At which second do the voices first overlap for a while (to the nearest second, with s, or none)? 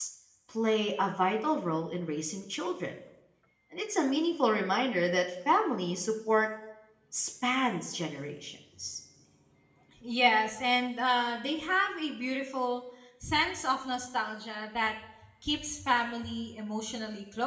none